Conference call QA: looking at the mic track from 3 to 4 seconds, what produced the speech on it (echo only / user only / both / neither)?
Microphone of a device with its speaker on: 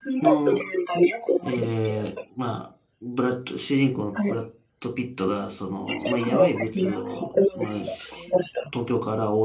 user only